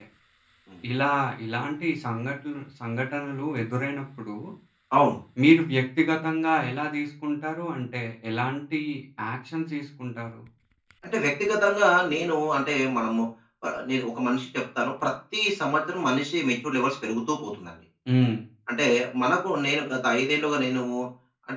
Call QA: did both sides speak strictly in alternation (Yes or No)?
Yes